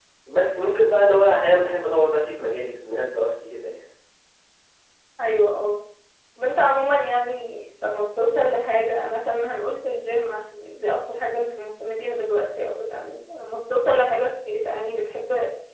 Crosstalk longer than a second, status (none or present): none